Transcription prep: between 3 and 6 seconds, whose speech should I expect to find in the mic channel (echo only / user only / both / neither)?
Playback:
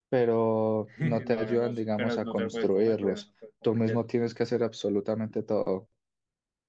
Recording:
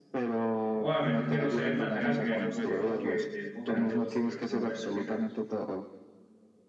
both